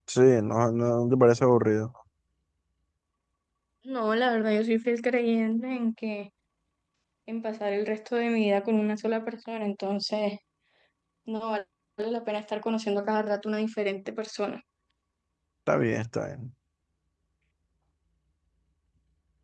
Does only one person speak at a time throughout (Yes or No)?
Yes